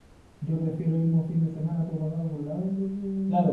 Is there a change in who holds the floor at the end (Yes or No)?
Yes